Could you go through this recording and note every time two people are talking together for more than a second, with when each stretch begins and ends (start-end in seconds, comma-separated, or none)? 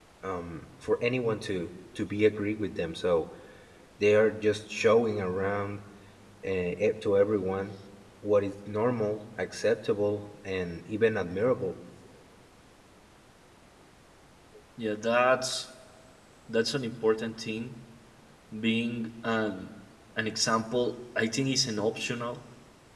none